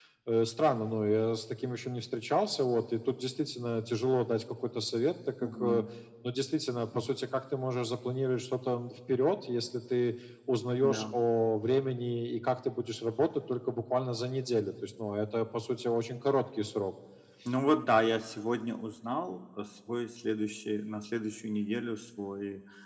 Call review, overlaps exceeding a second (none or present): none